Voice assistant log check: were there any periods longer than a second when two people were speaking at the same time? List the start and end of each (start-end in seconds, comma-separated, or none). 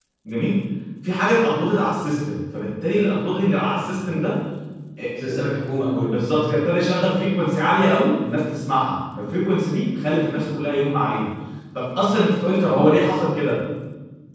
none